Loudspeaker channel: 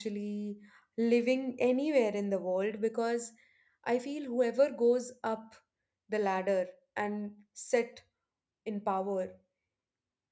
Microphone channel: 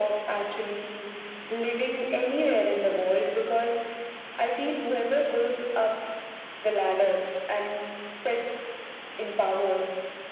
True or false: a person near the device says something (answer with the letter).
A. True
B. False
B